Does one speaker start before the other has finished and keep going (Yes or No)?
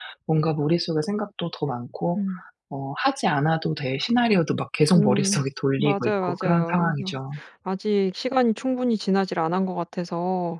Yes